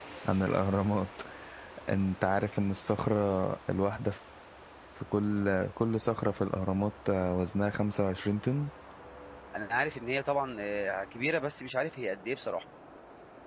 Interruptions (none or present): none